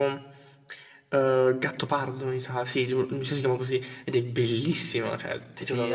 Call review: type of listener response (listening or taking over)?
taking over